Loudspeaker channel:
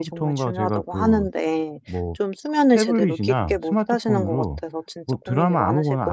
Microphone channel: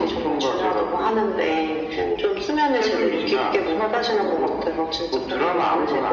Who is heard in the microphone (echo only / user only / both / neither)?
echo only